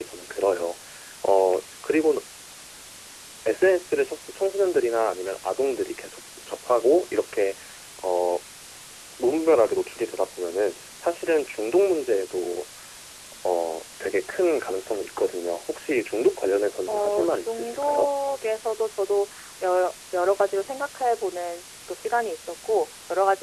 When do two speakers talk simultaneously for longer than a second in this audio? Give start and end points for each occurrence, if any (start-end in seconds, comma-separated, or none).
16.9-18.1